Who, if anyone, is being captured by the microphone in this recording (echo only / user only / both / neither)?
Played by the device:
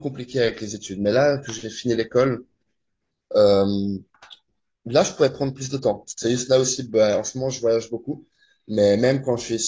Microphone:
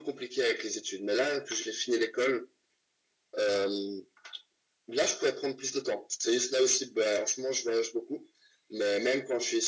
echo only